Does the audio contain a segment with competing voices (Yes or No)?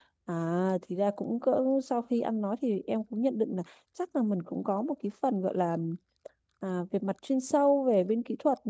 No